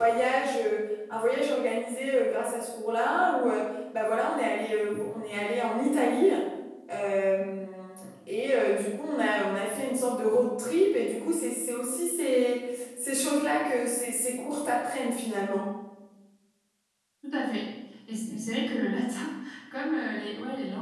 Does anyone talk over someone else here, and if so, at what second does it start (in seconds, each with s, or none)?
none